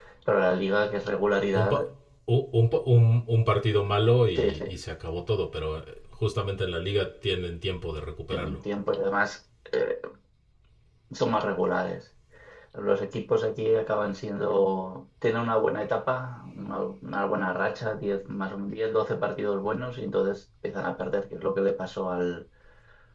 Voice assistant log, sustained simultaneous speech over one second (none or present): none